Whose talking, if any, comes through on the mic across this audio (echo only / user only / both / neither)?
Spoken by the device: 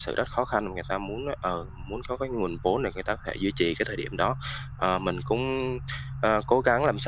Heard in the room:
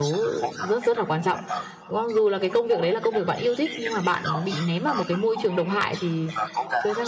both